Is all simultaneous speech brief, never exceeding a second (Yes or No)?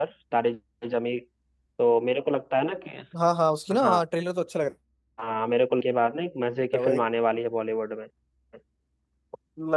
Yes